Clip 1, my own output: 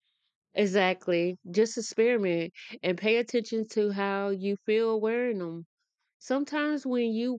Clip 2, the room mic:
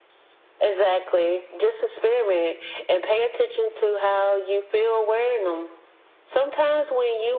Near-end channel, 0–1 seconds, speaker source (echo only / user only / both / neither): echo only